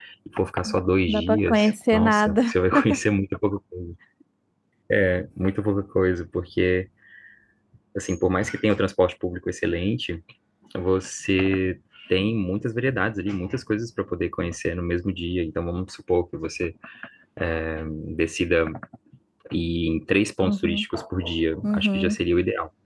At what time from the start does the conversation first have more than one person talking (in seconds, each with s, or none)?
1.1 s